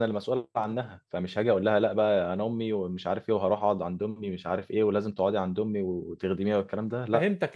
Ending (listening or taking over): taking over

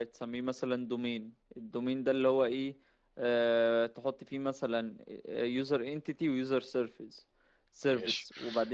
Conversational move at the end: listening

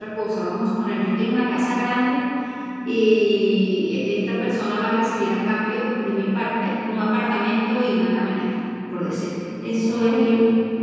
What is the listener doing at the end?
listening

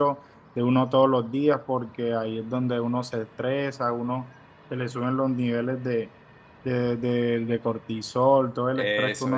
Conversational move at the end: taking over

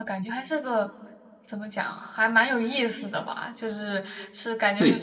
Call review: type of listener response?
listening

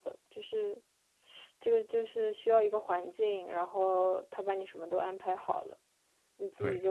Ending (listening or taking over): listening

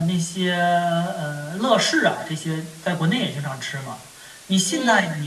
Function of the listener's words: listening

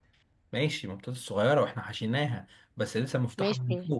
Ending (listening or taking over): taking over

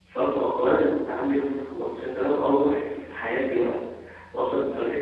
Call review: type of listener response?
listening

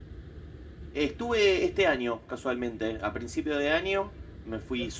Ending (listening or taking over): listening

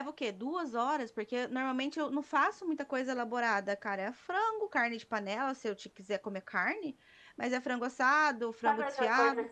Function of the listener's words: taking over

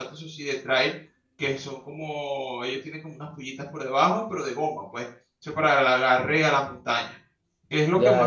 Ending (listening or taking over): listening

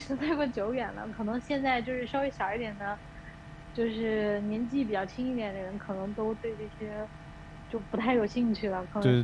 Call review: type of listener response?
taking over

